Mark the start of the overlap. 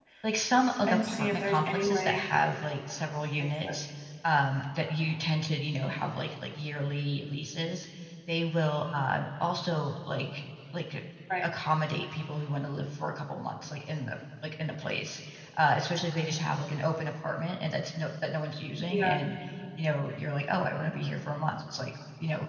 0.9 s

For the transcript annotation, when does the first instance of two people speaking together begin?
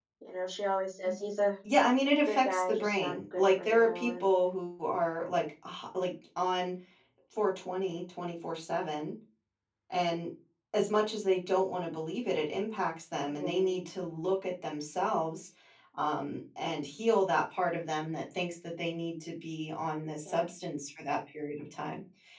2.3 s

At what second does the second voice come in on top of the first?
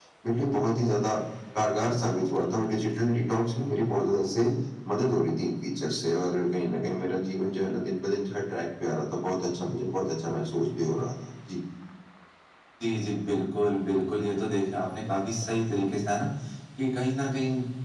none

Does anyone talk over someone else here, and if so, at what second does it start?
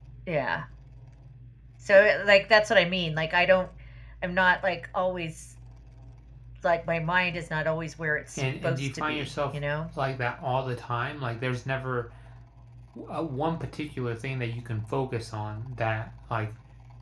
8.4 s

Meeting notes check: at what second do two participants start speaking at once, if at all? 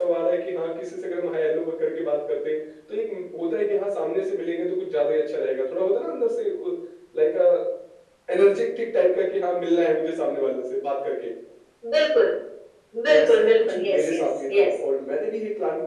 13.1 s

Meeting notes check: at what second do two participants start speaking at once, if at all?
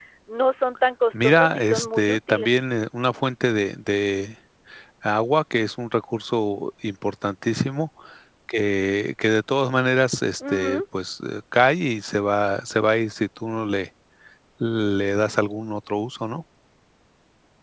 1.2 s

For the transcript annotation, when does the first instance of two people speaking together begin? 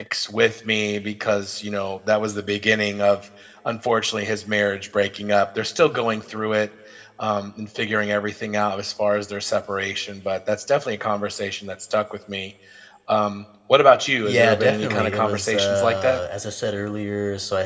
14.2 s

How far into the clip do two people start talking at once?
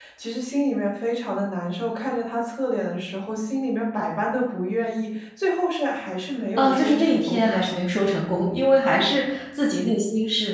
6.6 s

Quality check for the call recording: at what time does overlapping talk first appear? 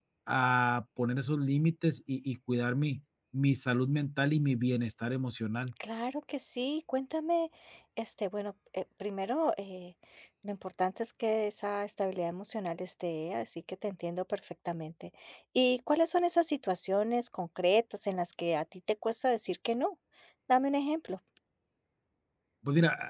none

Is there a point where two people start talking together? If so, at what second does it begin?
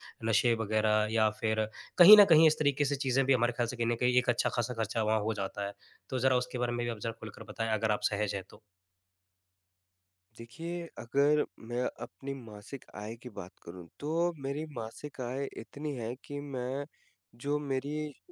none

